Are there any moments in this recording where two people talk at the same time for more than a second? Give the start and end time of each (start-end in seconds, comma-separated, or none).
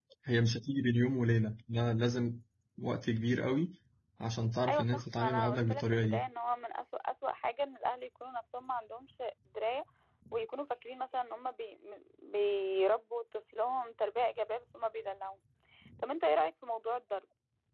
4.7-6.2